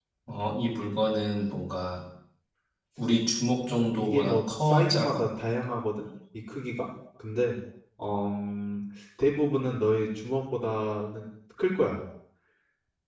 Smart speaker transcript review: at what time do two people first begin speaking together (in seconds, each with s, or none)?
4.0 s